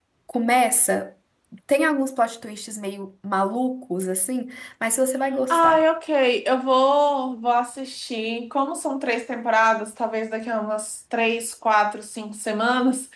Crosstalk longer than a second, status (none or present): none